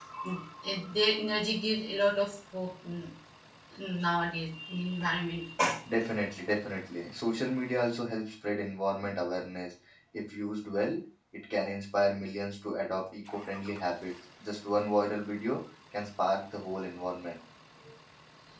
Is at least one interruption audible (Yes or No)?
No